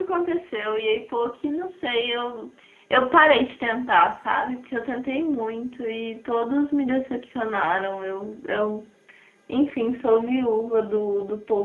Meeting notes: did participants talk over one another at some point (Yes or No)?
No